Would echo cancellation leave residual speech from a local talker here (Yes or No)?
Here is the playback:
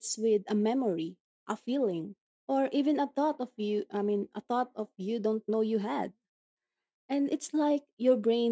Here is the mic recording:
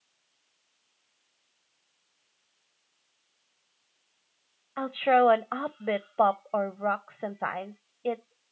Yes